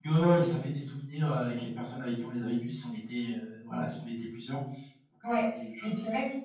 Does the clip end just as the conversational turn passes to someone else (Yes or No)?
Yes